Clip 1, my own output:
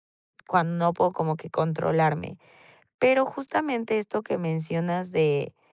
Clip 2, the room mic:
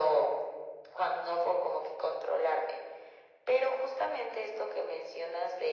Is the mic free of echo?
No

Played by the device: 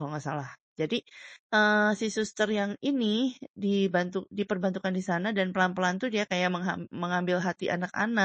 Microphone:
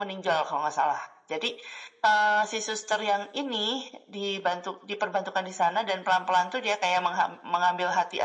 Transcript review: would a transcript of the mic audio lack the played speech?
No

